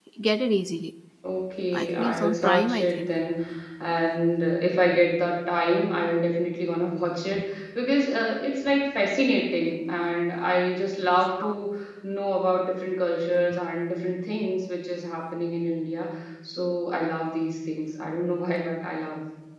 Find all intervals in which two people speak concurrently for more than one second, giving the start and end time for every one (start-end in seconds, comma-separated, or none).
1.8-3.1